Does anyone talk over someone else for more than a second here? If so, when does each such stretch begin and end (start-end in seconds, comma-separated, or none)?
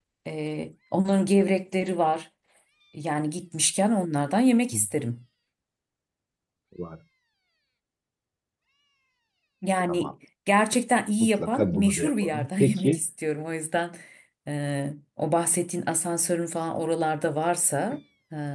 11.2-13.0